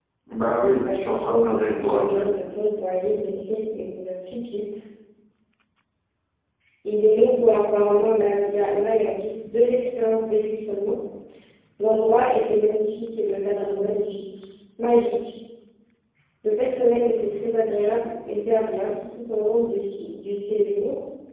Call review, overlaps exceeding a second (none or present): present